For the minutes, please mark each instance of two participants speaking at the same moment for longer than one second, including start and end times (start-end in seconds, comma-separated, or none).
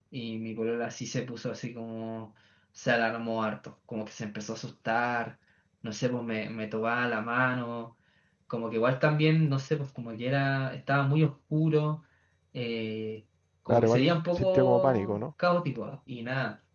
13.7-15.2